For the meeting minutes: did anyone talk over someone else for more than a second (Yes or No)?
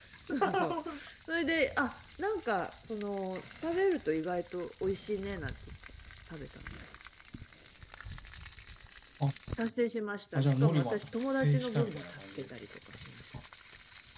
Yes